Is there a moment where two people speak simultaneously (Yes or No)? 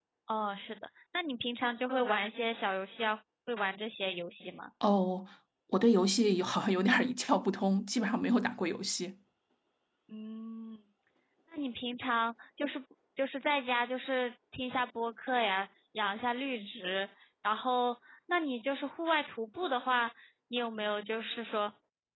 No